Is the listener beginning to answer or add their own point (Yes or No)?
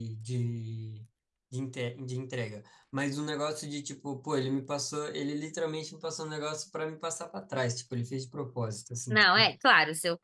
Yes